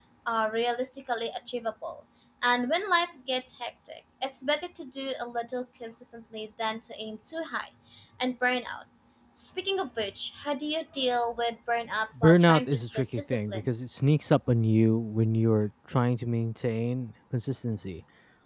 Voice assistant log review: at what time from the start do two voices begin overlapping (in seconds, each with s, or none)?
12.2 s